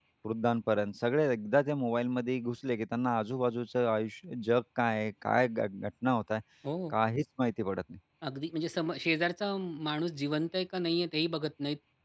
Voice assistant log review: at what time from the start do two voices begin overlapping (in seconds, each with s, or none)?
none